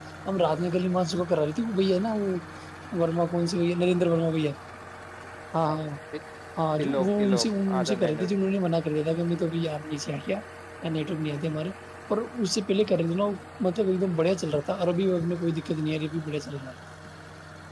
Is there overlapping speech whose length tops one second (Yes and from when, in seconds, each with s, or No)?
Yes, from 6.8 s